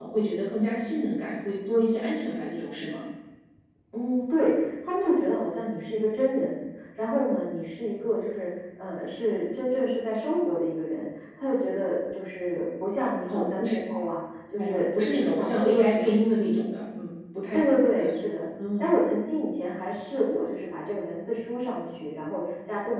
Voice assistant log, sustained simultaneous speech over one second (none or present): present